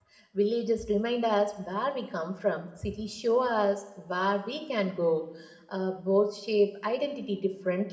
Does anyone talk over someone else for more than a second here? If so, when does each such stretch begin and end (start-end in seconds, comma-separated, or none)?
none